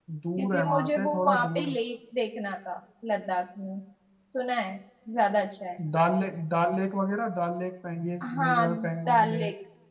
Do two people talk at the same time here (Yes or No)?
Yes